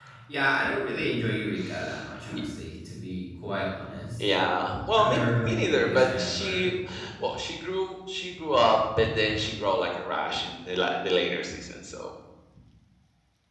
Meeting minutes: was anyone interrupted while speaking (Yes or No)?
Yes